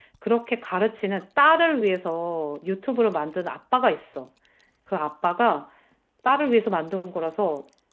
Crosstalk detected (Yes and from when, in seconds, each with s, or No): No